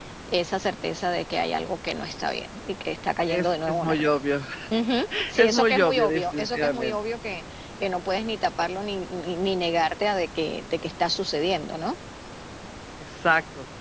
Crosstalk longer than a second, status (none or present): present